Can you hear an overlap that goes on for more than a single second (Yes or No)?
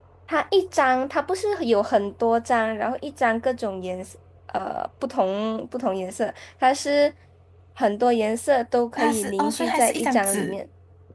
Yes